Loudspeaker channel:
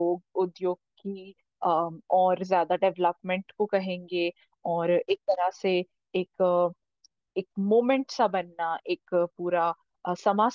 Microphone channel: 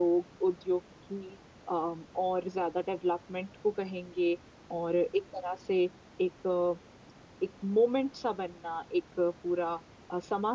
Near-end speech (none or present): none